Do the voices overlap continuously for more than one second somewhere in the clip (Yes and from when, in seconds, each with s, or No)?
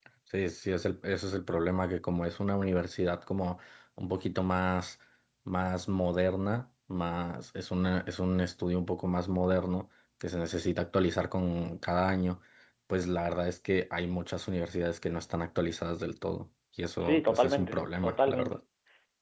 Yes, from 17.0 s